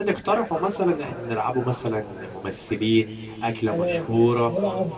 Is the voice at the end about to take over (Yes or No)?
Yes